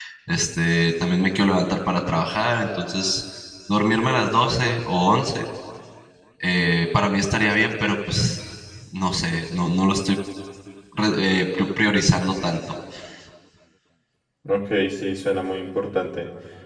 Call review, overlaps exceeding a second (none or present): none